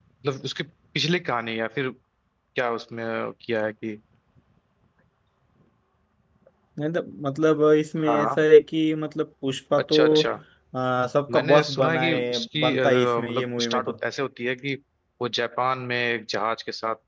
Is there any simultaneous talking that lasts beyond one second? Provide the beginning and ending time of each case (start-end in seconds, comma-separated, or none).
11.3-13.8